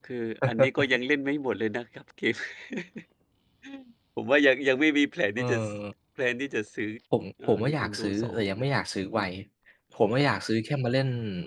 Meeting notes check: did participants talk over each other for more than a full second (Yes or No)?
Yes